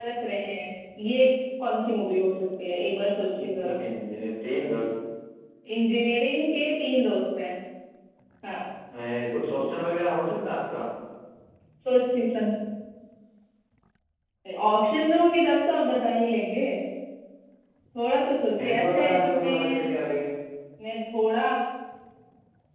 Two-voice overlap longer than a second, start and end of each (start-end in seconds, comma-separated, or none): 18.6-19.9